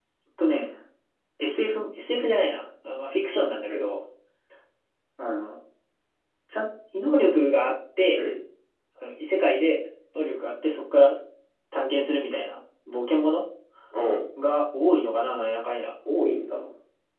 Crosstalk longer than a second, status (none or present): none